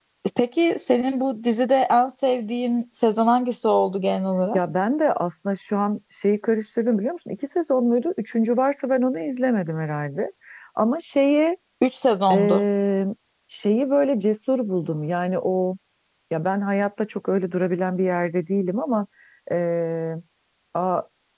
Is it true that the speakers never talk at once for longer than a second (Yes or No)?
Yes